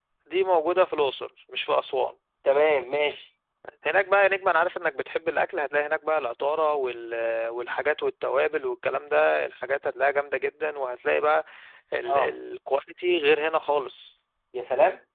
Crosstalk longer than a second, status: none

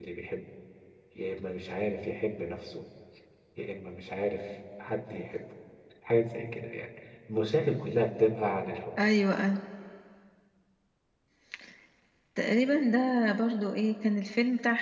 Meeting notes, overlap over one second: none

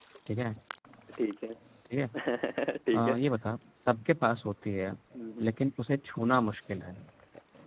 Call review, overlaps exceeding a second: none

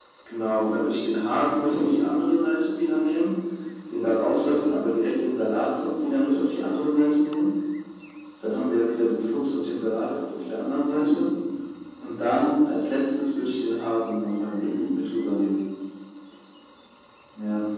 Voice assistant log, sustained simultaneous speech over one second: none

